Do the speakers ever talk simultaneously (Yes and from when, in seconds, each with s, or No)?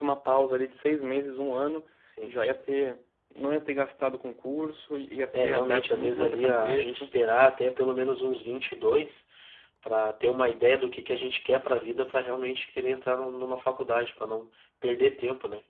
Yes, from 5.3 s